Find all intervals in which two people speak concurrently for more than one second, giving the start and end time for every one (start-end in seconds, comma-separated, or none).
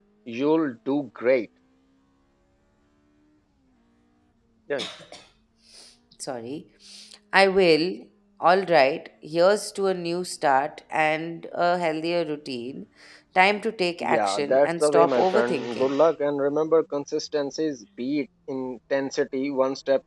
14.0-15.9